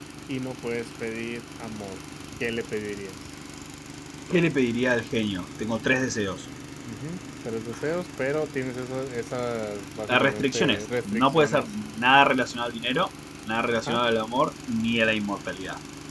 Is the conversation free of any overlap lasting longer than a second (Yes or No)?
No